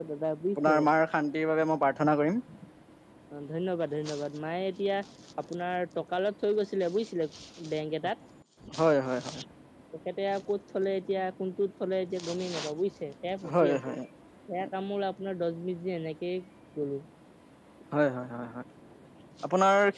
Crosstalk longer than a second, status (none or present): none